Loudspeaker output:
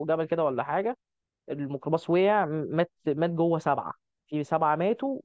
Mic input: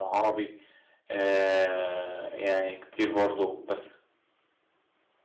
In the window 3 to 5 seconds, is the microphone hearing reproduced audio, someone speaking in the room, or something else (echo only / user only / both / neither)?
user only